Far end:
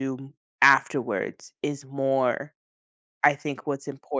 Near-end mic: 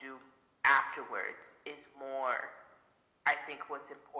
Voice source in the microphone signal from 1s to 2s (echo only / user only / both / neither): echo only